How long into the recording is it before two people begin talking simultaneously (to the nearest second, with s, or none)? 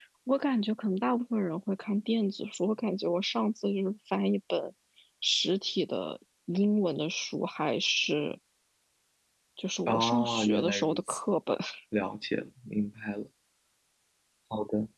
10 s